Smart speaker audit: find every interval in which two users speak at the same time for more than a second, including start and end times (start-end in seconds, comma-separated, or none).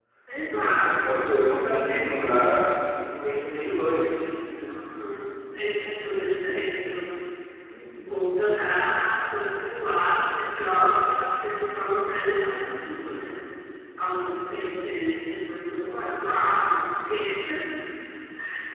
0.8-2.5